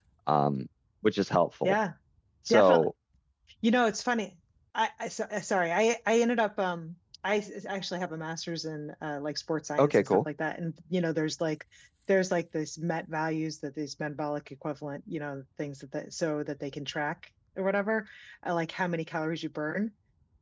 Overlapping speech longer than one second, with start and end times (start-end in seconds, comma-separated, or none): none